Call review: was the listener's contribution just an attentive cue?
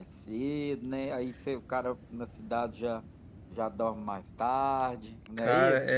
No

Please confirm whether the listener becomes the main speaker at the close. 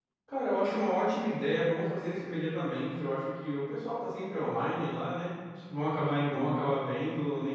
No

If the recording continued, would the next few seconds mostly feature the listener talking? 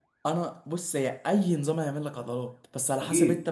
No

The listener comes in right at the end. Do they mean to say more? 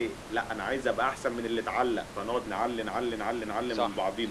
Yes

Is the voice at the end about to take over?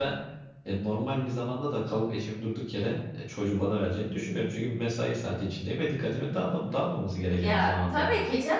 Yes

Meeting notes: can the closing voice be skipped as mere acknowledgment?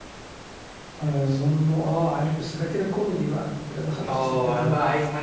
No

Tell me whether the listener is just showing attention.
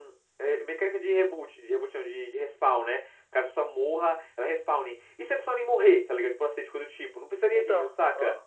Yes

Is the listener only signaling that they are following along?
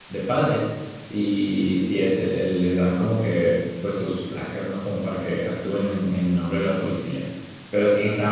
Yes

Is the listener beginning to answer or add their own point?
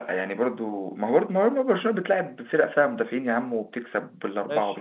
Yes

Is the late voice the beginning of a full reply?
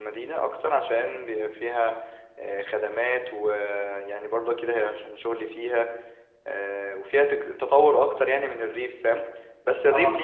No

